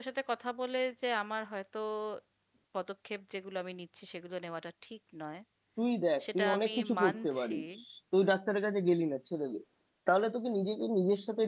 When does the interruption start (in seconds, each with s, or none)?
6.2 s